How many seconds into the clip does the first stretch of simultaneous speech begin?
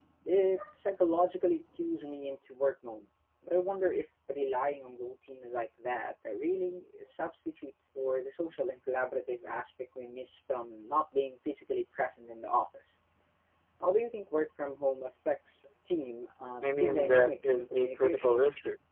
17 s

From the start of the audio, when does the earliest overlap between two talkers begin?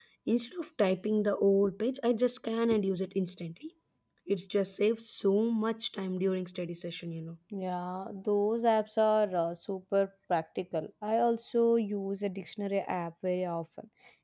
none

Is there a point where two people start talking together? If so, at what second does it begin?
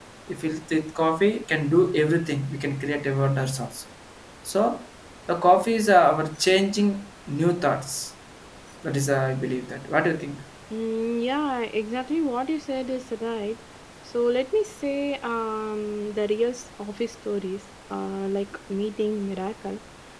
none

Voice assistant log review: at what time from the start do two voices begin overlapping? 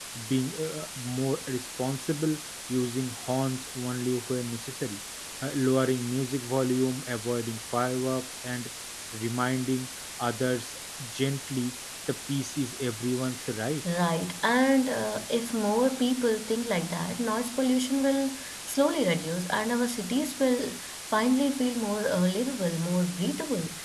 none

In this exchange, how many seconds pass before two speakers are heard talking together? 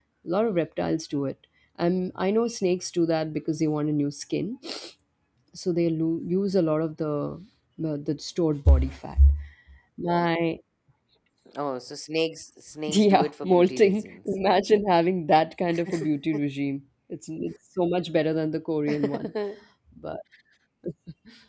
13 s

